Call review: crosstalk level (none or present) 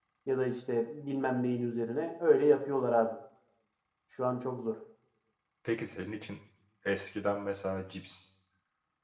none